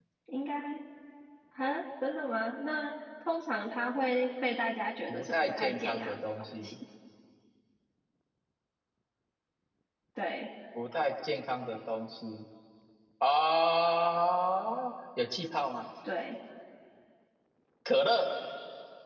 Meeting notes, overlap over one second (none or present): present